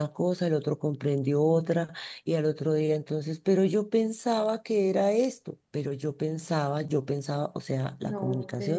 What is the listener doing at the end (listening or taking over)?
listening